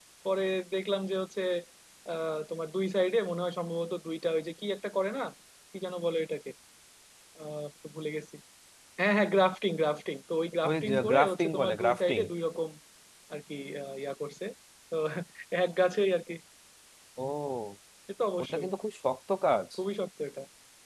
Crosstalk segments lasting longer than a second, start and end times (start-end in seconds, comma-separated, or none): 10.7-12.2